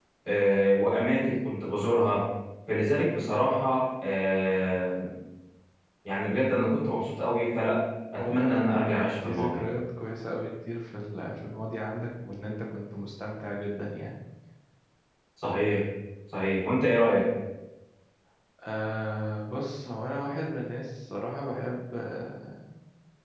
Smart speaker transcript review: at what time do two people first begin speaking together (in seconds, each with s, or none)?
8.2 s